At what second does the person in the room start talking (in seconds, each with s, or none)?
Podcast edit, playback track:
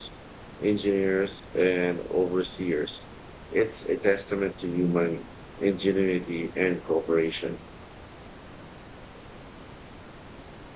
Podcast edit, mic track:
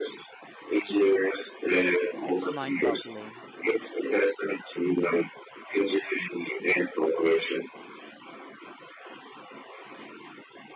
2.2 s